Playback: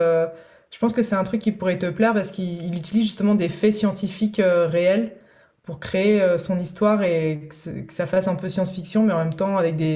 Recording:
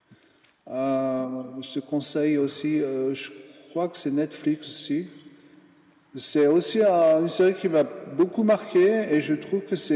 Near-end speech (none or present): present